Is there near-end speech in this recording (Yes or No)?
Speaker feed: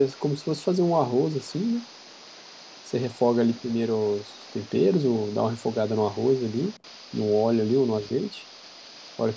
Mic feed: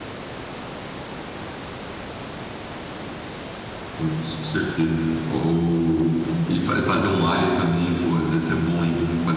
Yes